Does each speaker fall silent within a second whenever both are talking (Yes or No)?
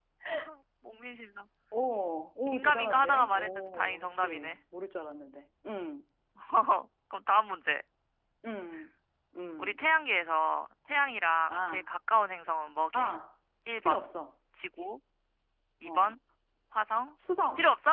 No